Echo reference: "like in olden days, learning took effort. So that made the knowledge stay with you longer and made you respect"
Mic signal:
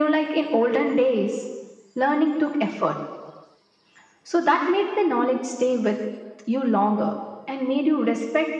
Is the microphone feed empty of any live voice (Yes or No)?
Yes